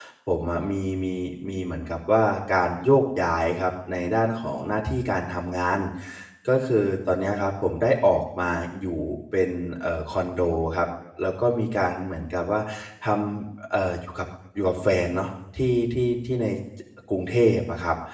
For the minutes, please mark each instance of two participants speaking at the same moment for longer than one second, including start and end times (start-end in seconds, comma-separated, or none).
none